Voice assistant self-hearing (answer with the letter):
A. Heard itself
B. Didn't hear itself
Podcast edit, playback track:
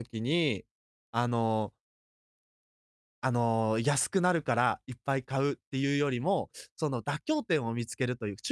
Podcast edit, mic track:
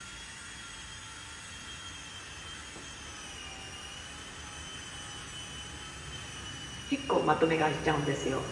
B